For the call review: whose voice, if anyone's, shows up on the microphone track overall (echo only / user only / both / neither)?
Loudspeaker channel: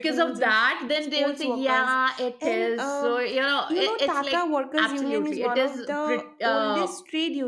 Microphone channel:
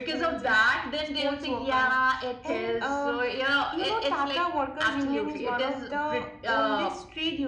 echo only